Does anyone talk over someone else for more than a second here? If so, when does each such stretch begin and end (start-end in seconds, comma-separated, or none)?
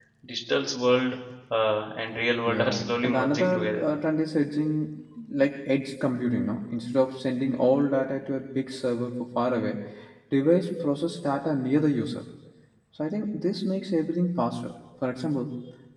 2.5-3.9